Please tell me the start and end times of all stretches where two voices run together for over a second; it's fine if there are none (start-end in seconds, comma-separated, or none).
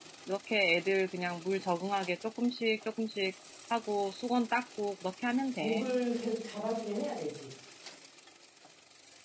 none